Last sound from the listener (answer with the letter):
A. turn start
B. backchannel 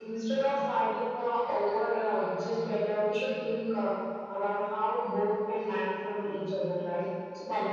B